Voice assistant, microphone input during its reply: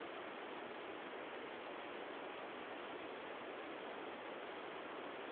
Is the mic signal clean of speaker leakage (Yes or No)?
Yes